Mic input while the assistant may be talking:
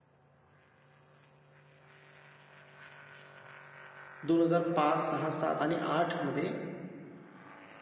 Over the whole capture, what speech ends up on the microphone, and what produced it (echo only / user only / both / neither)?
user only